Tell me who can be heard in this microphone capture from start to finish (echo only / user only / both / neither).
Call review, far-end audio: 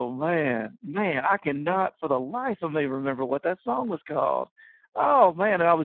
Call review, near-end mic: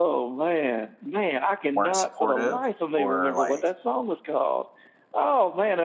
both